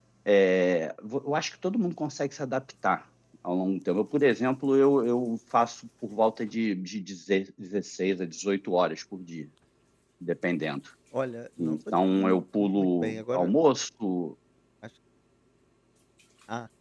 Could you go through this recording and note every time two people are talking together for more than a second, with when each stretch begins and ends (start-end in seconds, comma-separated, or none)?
11.6-13.5